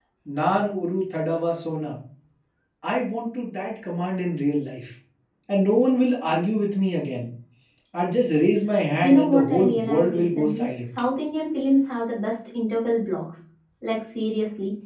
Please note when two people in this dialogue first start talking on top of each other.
9.0 s

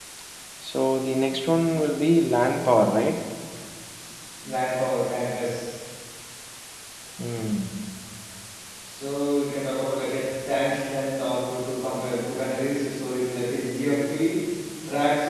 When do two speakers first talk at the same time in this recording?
none

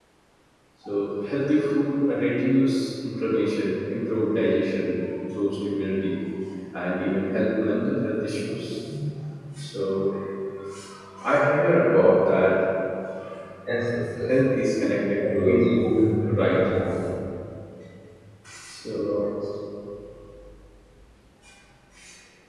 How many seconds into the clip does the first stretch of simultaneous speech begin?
15.3 s

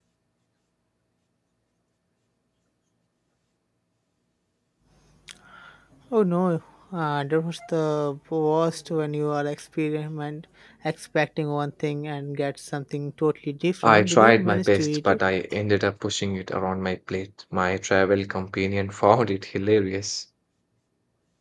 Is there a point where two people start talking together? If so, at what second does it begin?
13.8 s

